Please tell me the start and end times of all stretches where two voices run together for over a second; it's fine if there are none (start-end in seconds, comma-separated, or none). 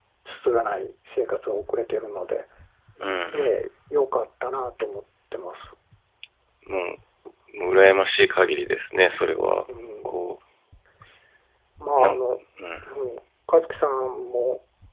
none